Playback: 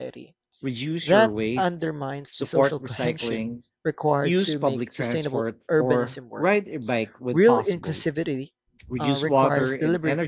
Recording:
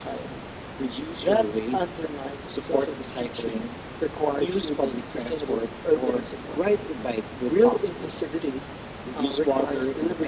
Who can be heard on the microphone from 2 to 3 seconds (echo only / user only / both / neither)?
echo only